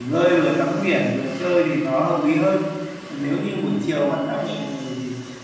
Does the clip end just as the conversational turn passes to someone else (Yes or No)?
No